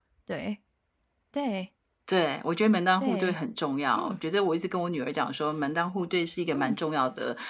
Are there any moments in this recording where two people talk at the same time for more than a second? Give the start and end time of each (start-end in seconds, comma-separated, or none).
none